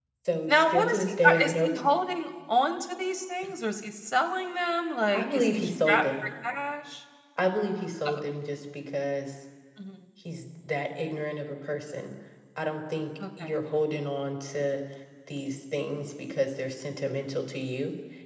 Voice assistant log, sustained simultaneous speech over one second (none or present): present